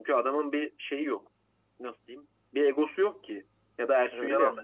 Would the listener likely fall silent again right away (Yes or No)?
Yes